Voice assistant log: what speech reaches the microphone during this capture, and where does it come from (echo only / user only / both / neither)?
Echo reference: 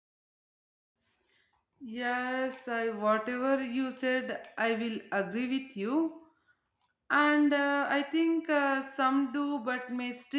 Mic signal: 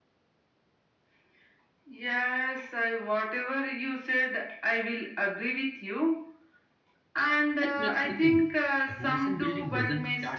both